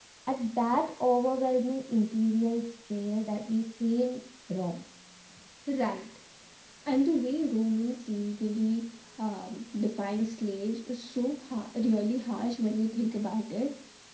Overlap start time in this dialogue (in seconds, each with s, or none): none